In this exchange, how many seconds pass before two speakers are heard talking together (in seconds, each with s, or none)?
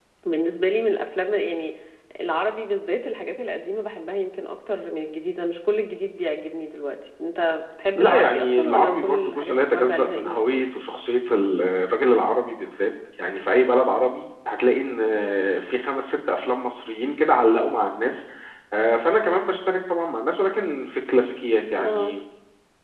8.0 s